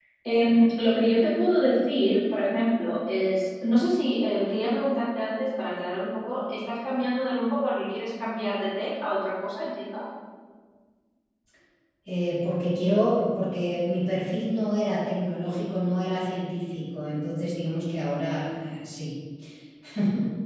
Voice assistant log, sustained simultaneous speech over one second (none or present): none